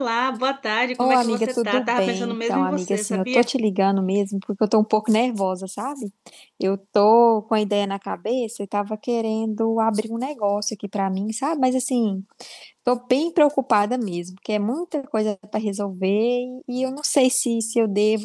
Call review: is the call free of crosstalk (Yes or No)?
No